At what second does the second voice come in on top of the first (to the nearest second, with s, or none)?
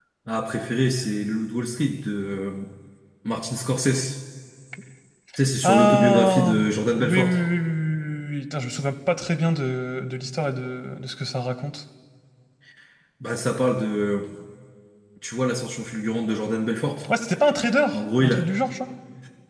6 s